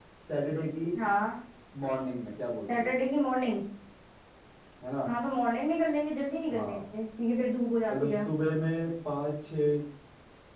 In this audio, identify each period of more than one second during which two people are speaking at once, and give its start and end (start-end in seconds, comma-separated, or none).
none